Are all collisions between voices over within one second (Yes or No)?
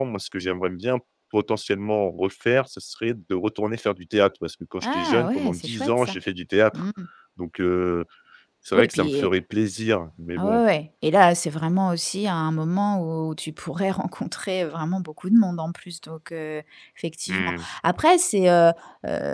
No